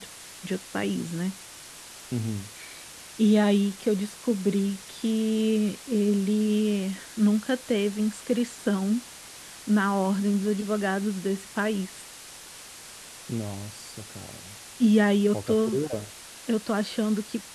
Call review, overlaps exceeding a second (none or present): none